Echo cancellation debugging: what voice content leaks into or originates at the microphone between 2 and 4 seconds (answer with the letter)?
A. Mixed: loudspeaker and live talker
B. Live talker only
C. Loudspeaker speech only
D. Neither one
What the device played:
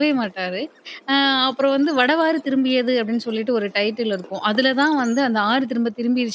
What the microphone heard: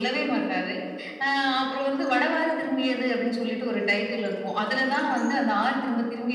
C